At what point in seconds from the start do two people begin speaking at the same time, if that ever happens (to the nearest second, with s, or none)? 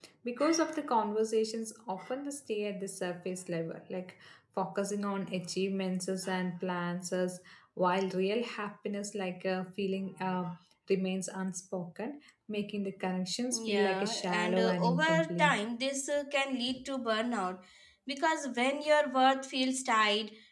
14 s